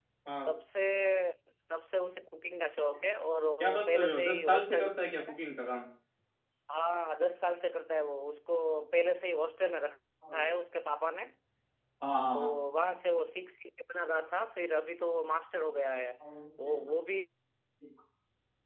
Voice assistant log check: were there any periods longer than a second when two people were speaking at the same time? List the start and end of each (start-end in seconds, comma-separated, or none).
3.6-5.3